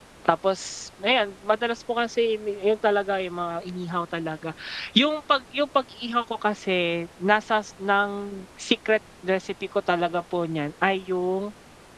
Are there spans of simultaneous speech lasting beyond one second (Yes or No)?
No